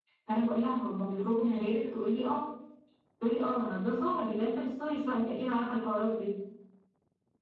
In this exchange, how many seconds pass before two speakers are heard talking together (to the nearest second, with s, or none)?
none